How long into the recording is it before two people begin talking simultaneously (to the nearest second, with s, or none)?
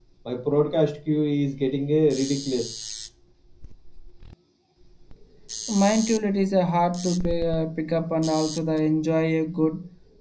none